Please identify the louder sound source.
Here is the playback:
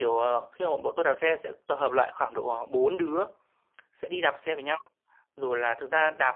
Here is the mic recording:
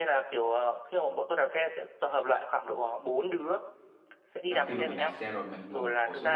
echo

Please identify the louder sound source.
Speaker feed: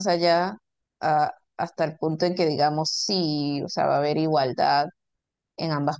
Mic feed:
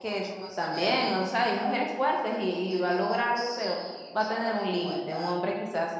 user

